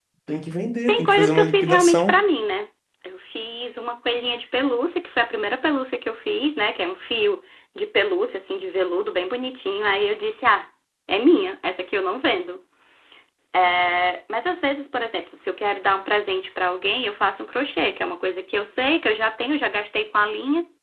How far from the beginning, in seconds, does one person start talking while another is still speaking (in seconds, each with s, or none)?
0.9 s